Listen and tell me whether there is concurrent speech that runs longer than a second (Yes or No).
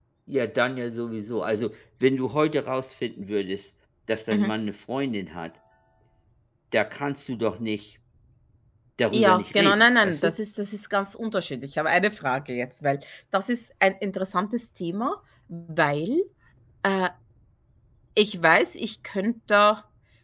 Yes